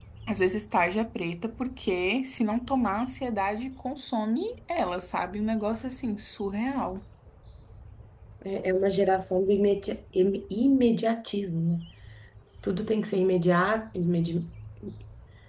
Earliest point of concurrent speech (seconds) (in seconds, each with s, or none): none